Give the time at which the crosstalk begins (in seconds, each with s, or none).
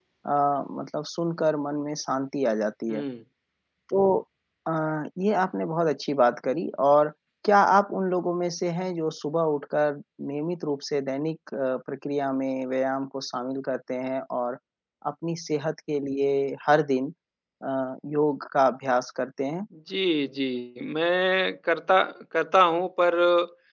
none